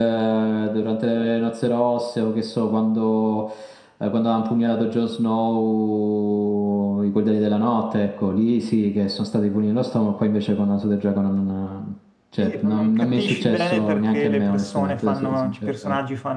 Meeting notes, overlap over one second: present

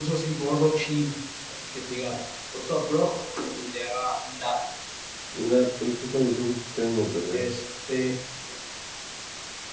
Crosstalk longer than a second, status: none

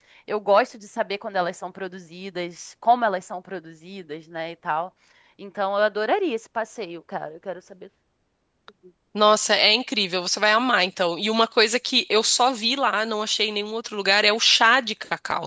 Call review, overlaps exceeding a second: none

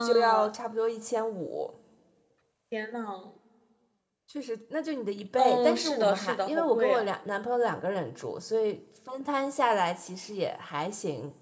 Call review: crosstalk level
present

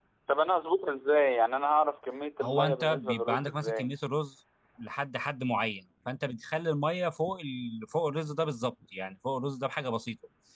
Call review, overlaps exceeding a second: present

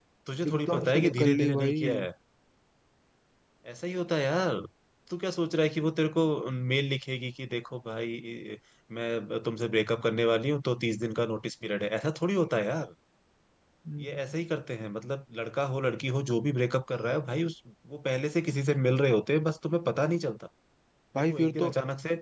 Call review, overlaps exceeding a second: present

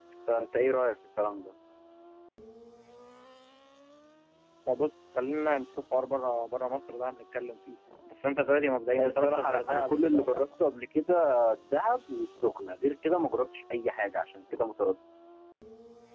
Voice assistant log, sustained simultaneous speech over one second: present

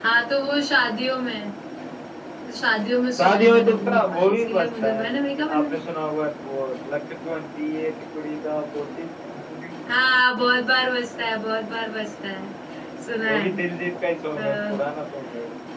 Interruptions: present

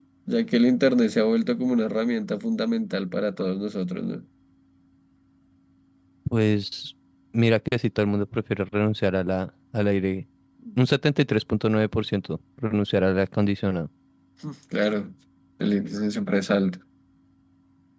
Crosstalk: none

